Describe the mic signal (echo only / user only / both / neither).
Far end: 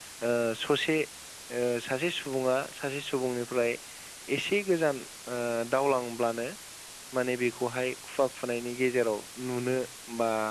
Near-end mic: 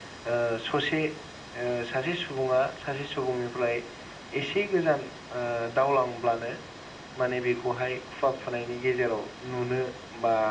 echo only